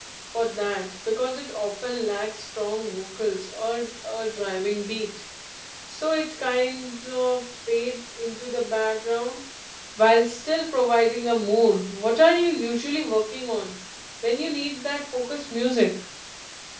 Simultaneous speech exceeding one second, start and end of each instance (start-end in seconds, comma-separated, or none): none